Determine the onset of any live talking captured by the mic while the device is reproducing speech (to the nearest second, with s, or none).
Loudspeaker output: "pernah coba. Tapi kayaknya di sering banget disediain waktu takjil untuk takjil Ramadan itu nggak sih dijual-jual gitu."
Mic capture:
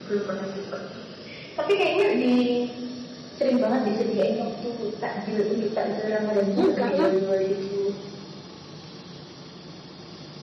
7 s